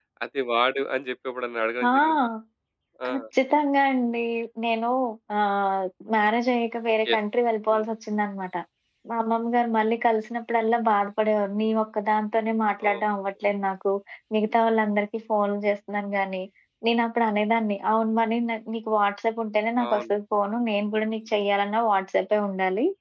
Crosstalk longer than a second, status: none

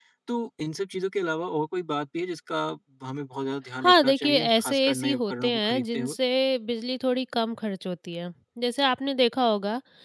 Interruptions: present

